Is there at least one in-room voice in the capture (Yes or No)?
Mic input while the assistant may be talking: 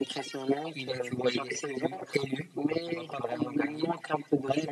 No